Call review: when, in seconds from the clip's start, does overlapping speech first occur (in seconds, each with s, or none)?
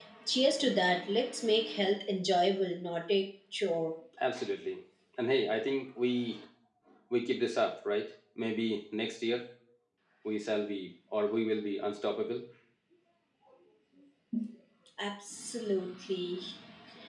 none